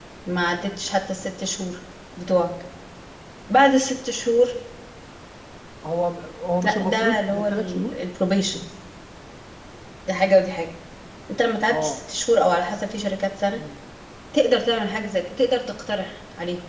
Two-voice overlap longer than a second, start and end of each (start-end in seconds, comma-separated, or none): 6.6-7.9